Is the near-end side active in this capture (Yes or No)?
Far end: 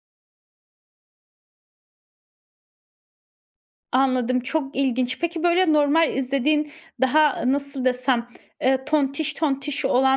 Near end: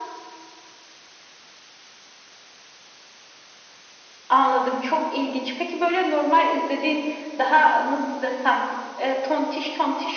No